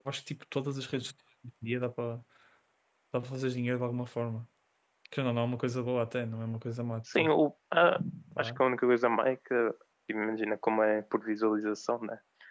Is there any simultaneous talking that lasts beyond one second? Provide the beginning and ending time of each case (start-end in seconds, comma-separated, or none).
none